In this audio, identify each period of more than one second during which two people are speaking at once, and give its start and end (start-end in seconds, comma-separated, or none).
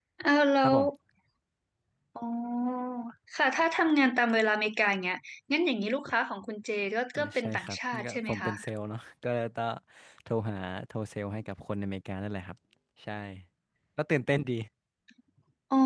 7.1-8.5